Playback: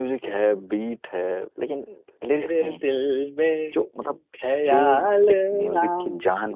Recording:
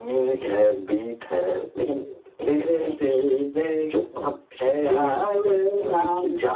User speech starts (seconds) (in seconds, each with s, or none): none